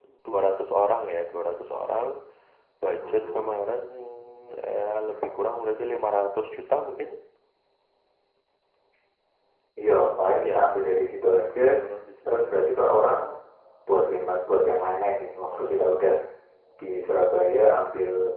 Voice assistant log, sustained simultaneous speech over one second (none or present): none